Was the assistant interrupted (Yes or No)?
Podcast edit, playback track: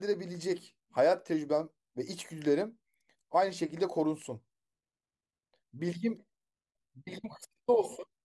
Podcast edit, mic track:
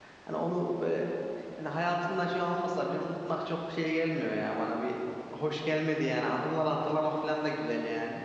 Yes